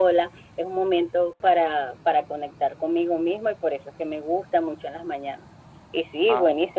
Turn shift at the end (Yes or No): No